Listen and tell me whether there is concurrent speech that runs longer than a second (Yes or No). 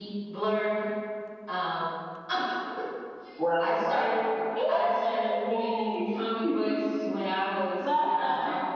Yes